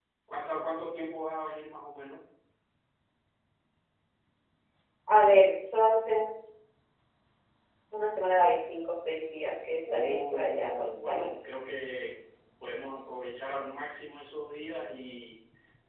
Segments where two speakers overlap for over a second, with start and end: 9.9-11.2

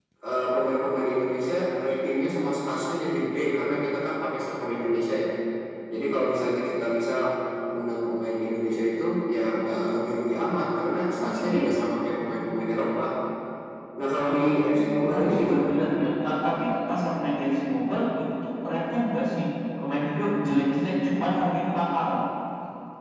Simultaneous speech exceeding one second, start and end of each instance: 14.2-15.7

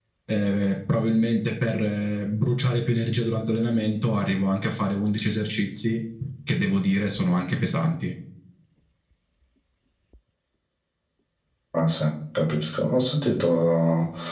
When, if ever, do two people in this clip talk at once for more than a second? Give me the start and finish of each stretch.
none

